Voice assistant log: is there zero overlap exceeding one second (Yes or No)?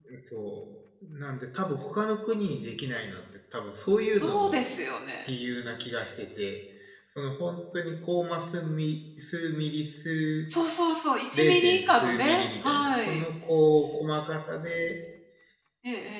No